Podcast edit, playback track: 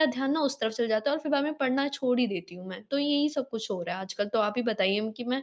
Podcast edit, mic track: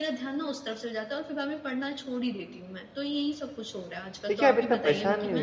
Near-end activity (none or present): present